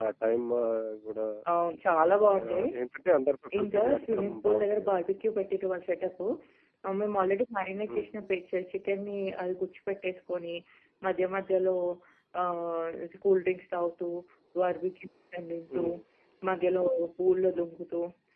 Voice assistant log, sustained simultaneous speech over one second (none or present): present